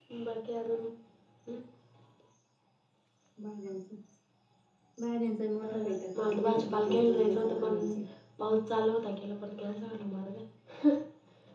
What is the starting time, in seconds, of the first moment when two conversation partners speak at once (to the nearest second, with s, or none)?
6 s